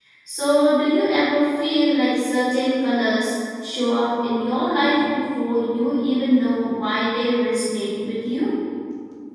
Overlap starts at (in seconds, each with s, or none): none